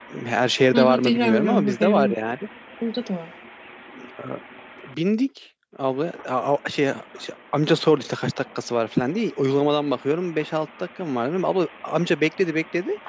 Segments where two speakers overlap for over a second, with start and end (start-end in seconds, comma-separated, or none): 0.7-2.2